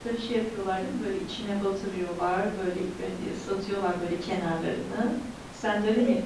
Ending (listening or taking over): listening